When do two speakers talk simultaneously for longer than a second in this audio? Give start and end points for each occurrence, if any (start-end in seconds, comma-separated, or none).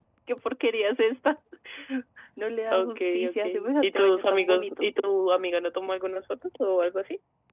2.7-4.9